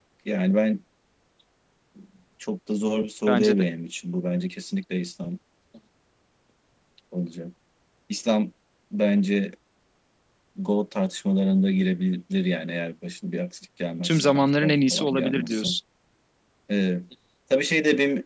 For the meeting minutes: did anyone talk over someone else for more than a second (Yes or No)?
Yes